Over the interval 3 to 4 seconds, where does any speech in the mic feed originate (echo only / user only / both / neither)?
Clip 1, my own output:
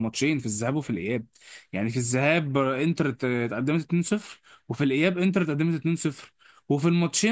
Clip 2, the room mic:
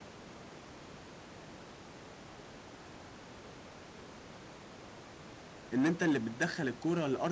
neither